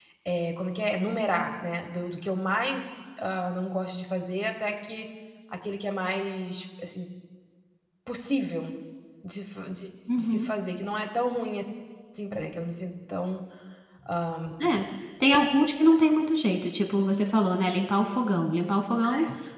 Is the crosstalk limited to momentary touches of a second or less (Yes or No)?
Yes